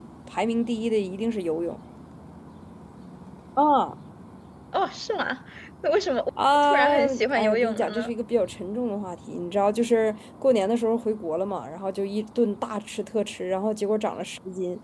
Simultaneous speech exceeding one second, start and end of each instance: 6.6-8.1

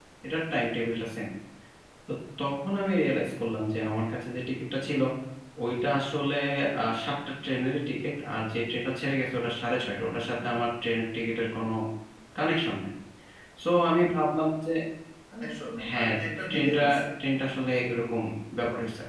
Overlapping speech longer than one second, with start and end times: none

